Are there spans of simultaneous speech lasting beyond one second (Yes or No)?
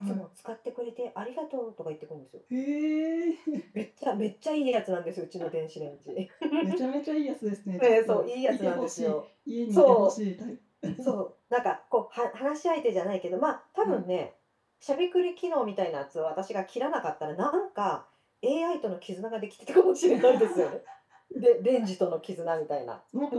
Yes